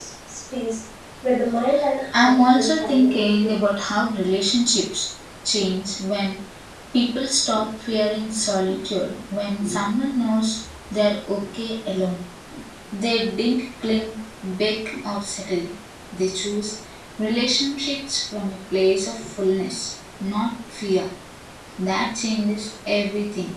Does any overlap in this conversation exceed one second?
Yes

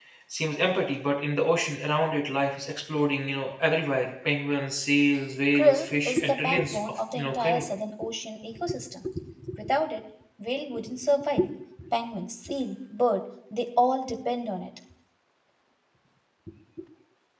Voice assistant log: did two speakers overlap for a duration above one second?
Yes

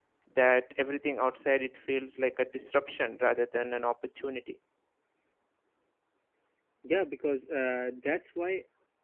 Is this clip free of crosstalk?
Yes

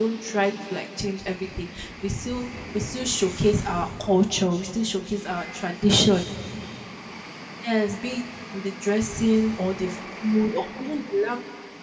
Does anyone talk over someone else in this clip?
No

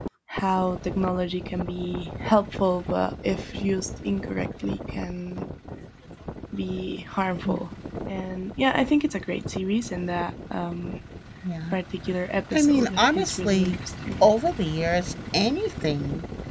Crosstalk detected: Yes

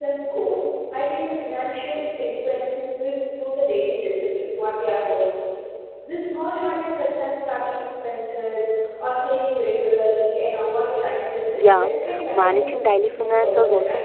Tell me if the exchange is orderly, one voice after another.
No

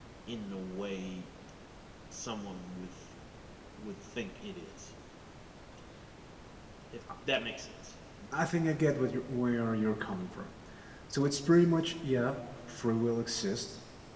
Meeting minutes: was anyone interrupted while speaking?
No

